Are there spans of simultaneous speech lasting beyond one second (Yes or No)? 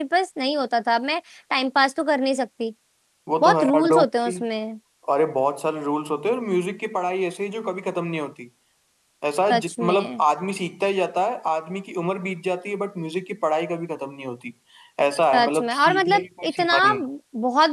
Yes